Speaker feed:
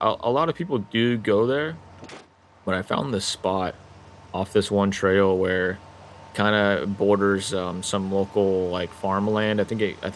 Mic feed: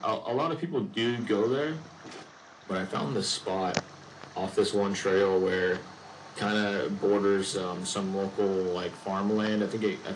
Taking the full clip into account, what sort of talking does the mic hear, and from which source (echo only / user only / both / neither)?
echo only